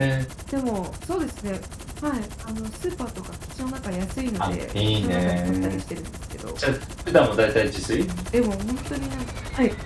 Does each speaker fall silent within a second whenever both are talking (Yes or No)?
No